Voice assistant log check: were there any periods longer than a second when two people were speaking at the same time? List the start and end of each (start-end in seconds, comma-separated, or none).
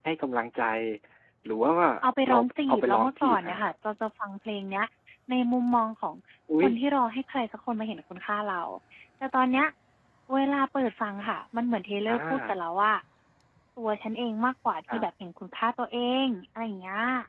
2.3-3.6